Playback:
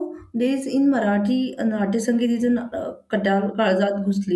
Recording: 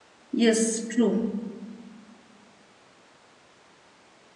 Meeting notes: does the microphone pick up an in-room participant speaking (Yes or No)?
Yes